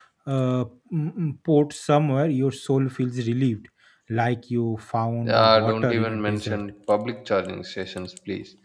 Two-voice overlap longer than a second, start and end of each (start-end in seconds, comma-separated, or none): 5.2-6.6